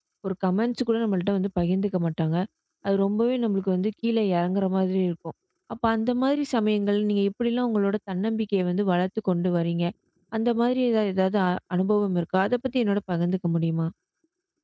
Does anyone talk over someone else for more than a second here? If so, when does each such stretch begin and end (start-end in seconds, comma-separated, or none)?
none